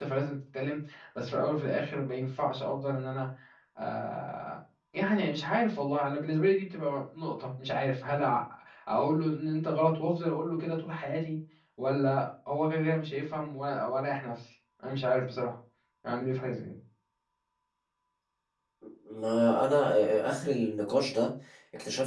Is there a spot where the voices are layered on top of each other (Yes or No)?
No